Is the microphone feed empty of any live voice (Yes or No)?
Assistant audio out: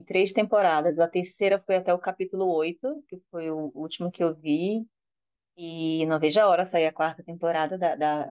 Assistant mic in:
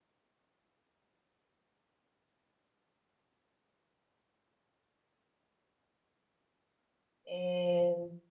No